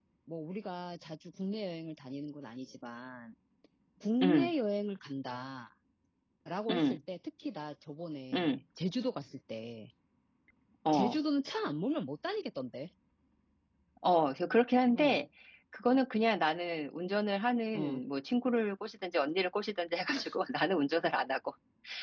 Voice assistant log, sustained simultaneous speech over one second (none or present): none